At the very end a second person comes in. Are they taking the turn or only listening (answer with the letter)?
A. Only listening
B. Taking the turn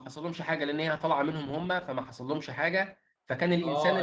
B